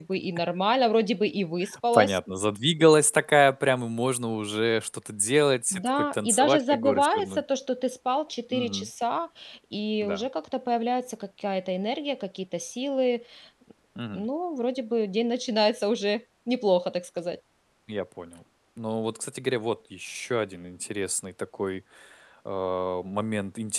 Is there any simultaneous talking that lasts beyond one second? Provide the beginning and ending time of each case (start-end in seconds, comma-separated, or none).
5.7-7.4